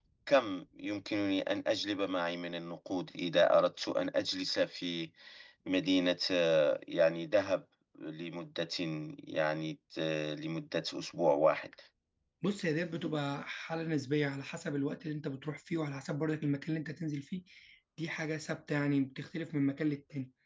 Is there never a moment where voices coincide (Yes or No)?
Yes